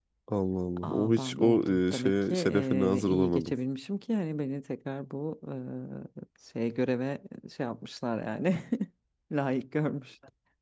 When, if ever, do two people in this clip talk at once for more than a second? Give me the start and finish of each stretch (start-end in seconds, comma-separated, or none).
0.8-3.5